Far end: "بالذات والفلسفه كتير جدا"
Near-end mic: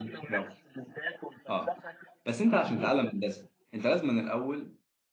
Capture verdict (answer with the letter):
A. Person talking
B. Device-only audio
A